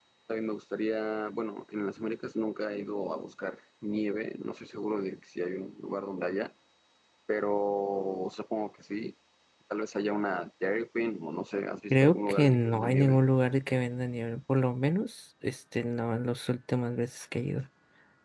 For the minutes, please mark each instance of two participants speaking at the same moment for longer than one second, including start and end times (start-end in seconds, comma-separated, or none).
11.9-13.2